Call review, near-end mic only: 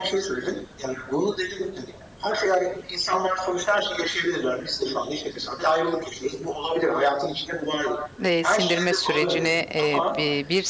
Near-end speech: present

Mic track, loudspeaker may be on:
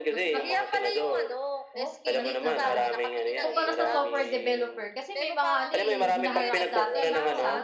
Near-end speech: present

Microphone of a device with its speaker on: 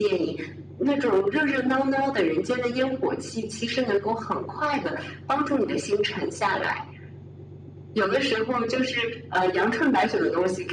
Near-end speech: none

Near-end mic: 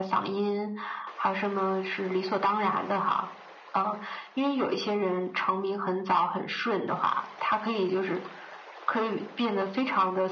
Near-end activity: none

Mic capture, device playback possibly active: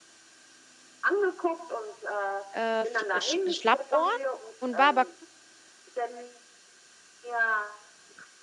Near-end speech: present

